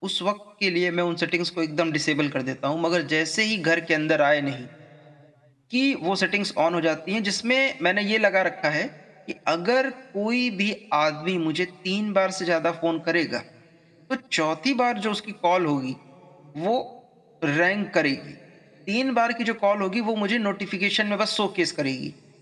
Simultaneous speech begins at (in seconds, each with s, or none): none